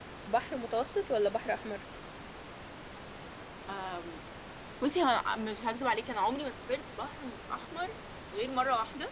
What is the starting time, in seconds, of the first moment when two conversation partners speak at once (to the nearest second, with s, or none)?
none